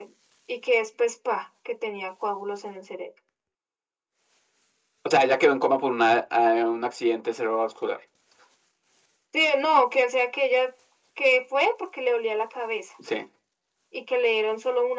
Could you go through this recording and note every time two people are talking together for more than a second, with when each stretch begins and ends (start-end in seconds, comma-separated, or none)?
none